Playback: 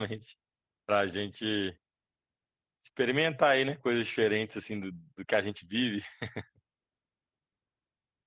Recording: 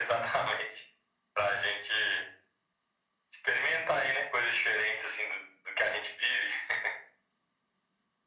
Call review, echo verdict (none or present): present